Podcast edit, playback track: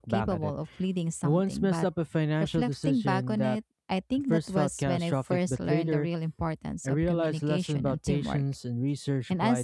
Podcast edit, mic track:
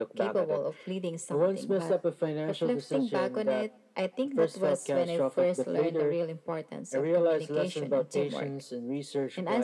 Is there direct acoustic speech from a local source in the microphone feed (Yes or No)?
No